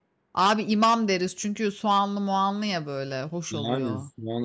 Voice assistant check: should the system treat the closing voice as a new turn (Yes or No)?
Yes